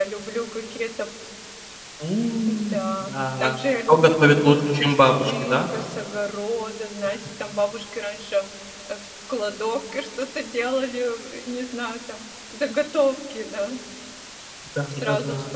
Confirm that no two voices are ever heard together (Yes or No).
No